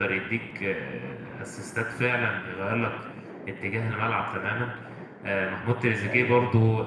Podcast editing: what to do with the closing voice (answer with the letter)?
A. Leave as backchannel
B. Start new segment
A